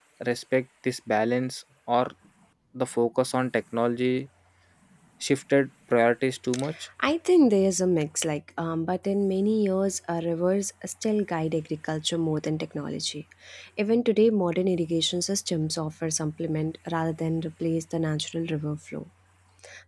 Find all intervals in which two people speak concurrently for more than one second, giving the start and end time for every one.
none

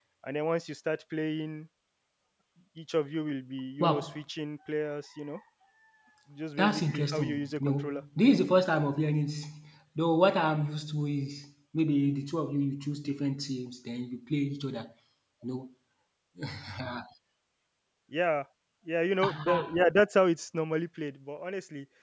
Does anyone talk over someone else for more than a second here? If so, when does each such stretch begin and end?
6.6-8.0

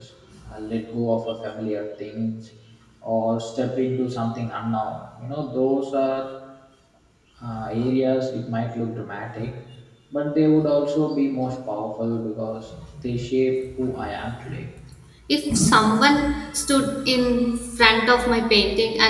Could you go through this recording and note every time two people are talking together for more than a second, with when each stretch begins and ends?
none

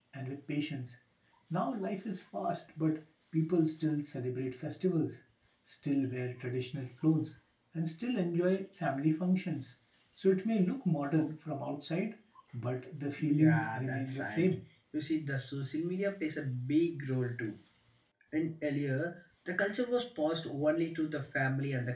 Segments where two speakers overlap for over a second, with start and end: 13.2-14.5

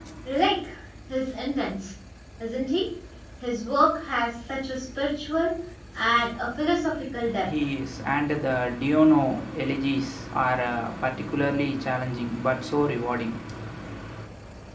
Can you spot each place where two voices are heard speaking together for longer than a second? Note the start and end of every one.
none

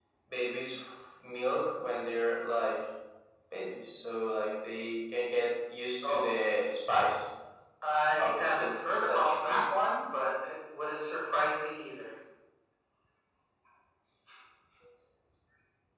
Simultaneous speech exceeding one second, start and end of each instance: 8.2-9.6

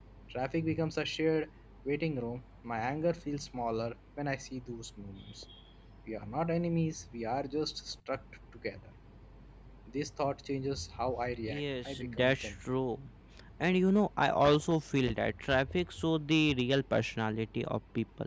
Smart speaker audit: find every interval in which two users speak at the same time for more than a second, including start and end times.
11.4-12.7

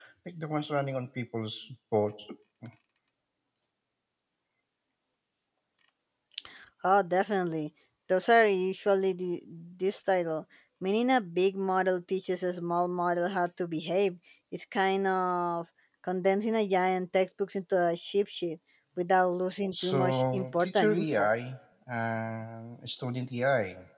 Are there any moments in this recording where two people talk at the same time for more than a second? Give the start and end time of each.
19.9-21.3

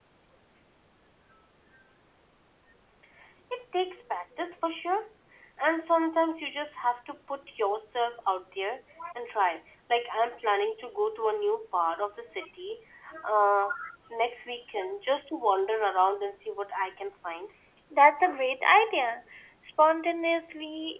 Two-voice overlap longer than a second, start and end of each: none

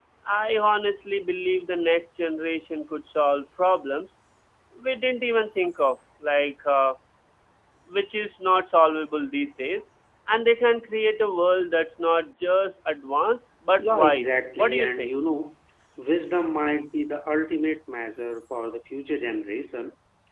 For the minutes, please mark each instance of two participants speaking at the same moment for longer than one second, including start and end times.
13.8-15.1

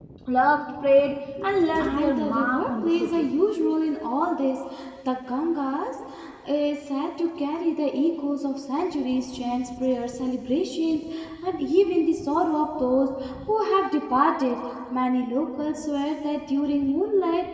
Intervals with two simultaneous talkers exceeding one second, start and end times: 1.8-3.2

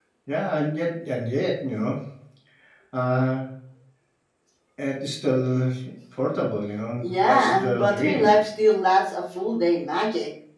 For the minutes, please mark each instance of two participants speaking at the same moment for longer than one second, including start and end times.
7.0-8.3

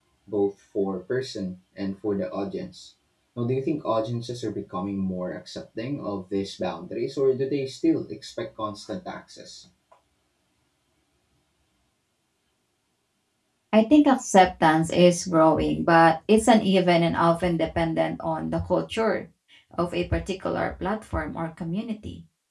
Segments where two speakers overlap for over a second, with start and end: none

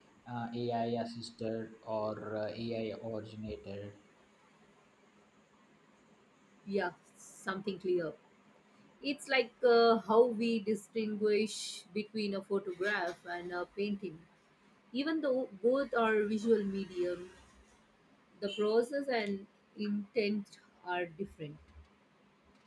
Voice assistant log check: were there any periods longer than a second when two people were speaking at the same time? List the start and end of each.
none

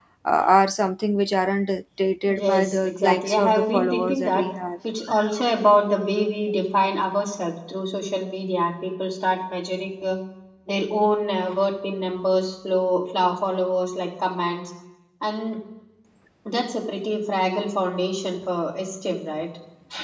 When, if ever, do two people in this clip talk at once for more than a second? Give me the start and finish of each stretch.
2.2-4.5

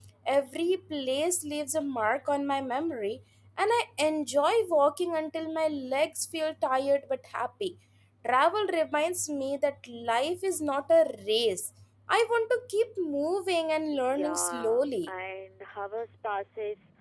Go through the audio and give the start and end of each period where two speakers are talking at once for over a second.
13.9-15.1

